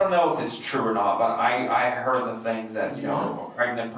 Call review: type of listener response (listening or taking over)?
listening